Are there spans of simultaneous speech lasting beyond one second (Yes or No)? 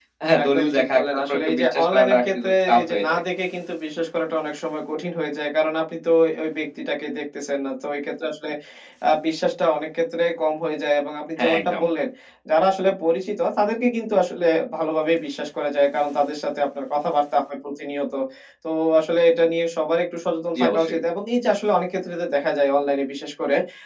Yes